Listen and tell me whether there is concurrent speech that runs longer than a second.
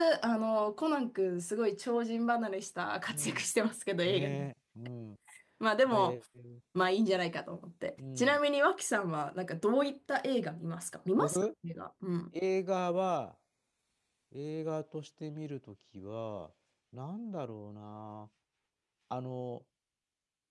No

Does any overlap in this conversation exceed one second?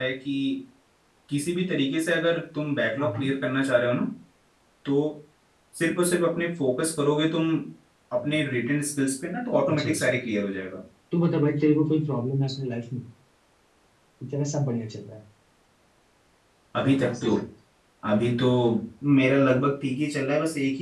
No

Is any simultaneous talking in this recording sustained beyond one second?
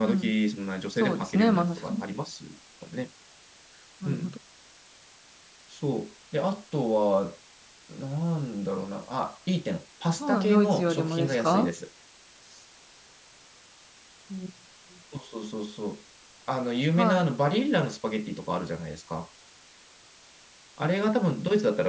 Yes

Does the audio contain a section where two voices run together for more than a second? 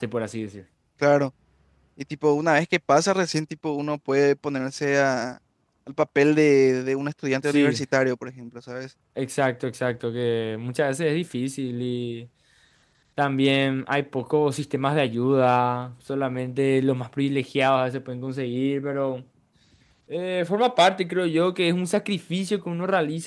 No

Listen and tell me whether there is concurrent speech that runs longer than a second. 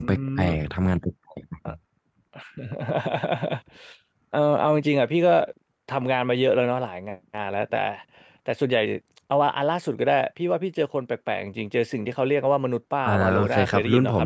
Yes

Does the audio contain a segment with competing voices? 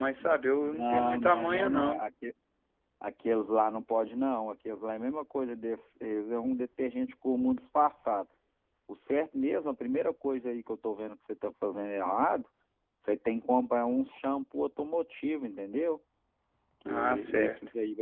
Yes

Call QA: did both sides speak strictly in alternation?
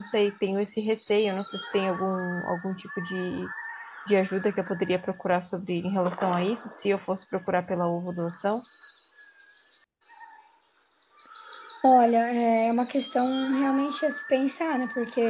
Yes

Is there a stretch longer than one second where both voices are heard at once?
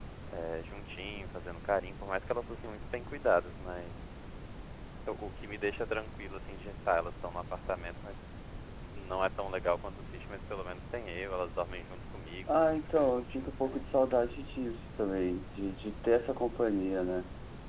Yes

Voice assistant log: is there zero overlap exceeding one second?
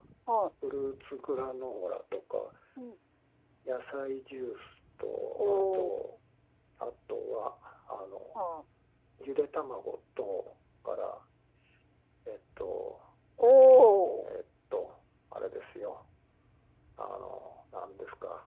Yes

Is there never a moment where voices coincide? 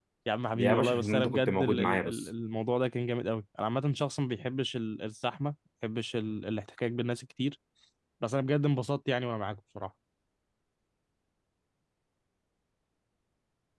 No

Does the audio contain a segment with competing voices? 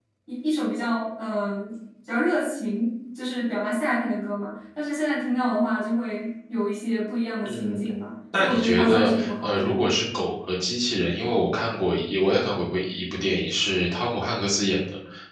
Yes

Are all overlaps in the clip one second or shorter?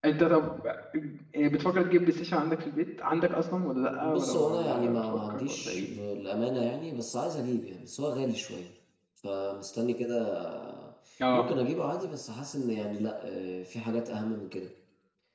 No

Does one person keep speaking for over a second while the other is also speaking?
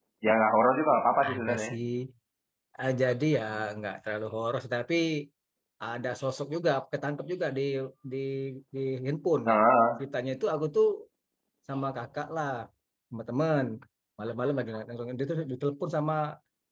No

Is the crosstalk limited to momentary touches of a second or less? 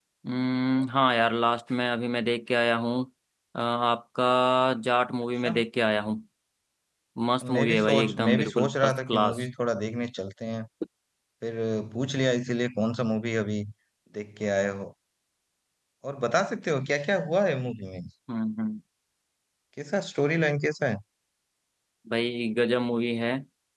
No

